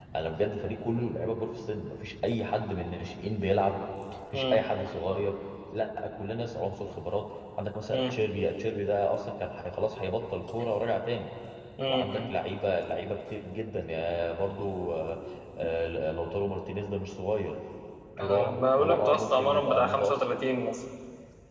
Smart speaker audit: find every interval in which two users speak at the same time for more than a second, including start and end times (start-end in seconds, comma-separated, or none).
18.2-20.1